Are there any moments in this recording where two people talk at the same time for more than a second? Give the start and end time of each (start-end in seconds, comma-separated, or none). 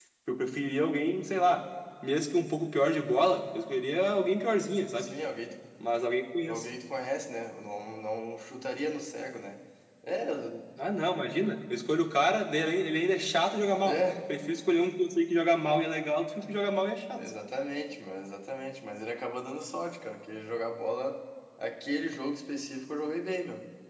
none